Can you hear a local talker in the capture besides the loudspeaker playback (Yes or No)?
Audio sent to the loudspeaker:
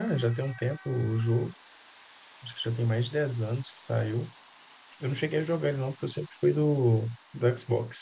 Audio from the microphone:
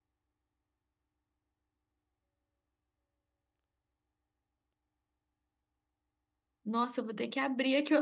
Yes